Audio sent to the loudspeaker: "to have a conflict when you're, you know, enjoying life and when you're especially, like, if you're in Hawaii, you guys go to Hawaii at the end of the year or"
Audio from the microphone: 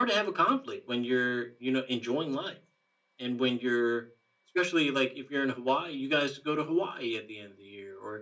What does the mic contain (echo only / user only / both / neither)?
echo only